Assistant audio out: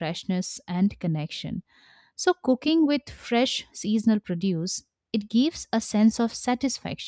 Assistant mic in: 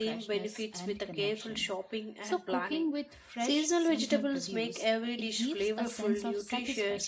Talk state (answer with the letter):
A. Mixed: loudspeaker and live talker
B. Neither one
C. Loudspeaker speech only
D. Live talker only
A